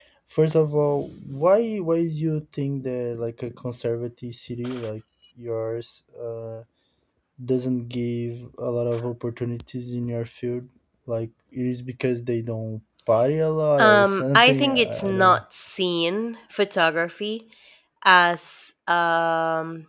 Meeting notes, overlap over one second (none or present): present